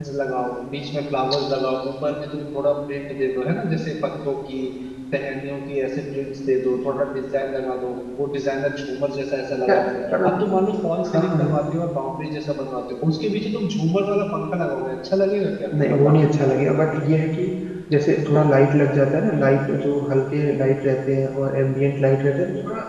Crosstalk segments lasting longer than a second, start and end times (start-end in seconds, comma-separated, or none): none